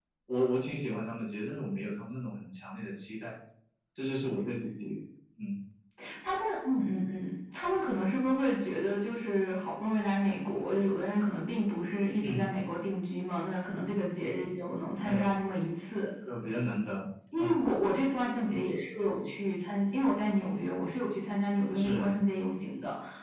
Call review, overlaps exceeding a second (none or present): none